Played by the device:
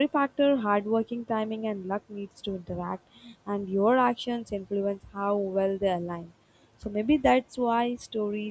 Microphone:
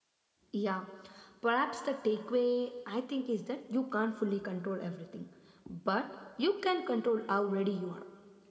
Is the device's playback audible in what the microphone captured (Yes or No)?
No